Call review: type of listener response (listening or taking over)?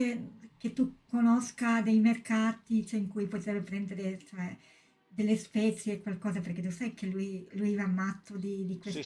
taking over